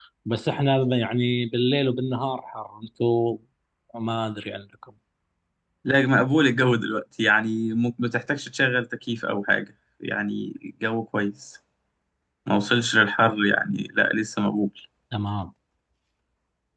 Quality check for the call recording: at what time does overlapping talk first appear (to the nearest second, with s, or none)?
none